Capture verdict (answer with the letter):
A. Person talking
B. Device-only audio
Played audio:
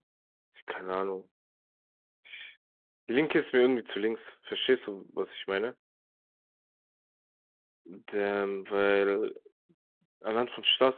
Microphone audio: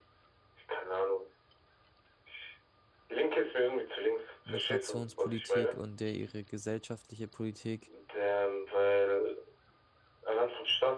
A